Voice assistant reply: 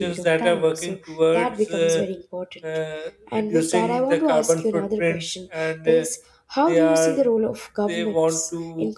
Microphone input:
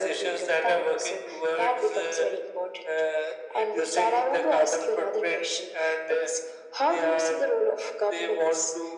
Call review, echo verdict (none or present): present